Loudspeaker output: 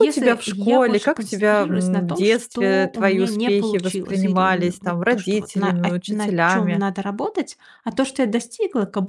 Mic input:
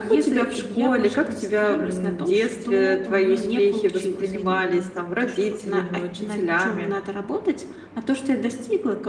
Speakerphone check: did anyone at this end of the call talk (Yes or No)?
No